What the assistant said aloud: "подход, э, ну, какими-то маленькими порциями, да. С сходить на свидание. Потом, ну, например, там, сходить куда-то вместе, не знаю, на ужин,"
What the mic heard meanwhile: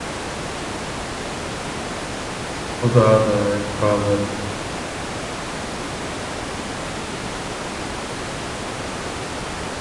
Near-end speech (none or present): present